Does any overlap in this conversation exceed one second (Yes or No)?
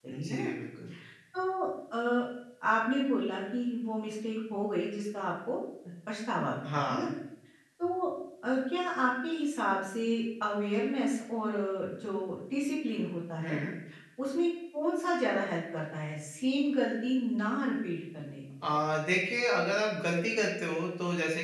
No